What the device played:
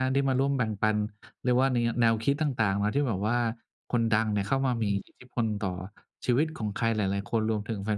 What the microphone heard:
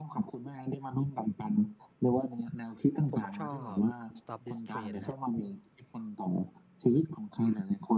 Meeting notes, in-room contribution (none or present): present